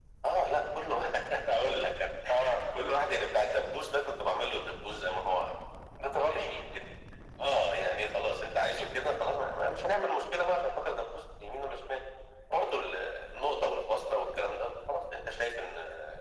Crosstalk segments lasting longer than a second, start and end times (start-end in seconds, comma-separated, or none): none